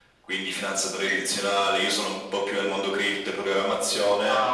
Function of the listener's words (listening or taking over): listening